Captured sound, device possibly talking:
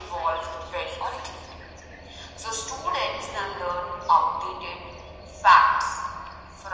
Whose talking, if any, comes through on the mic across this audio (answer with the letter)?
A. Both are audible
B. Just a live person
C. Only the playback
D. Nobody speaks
C